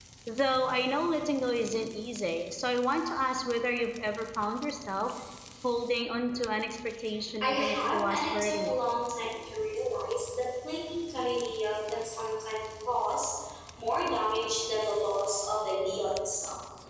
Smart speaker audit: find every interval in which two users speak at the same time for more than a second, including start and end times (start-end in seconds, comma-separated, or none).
7.4-8.8